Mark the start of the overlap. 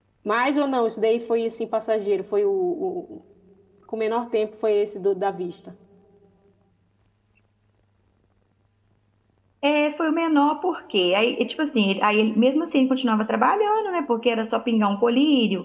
none

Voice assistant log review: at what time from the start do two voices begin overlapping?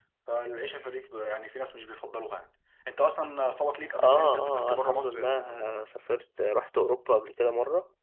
4.0 s

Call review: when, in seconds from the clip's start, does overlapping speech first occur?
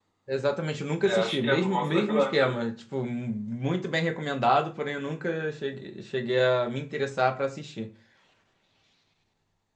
1.0 s

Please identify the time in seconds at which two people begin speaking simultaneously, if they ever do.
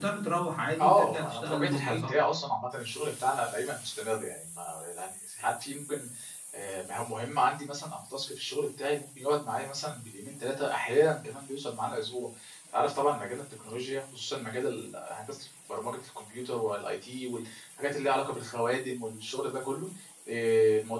0.8 s

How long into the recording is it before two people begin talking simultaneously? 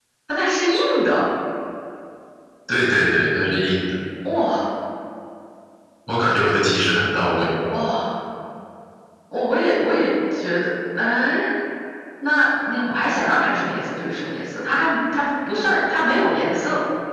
none

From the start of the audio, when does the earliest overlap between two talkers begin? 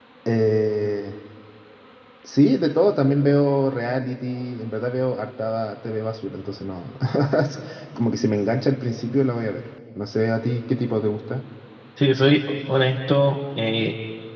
none

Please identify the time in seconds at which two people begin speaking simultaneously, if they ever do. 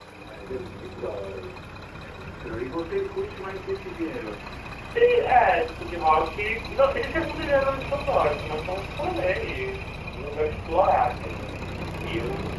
none

